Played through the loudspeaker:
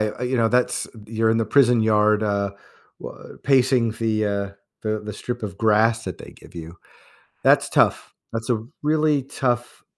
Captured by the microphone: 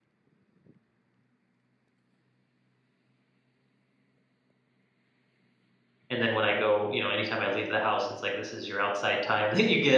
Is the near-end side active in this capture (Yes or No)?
Yes